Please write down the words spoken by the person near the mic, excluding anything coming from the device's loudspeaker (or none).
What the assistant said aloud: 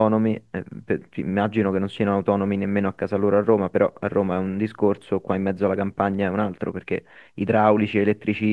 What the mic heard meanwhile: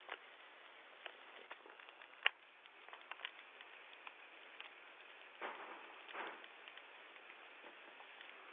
none